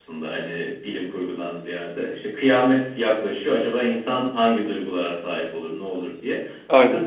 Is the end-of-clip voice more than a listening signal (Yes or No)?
No